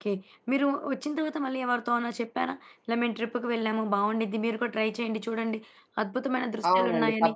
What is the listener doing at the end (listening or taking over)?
taking over